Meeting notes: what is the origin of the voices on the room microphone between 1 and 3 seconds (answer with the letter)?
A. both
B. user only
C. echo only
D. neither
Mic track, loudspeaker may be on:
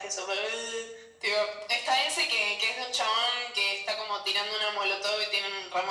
C